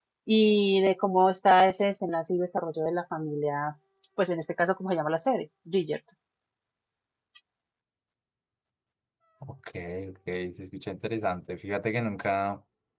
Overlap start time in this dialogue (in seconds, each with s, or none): none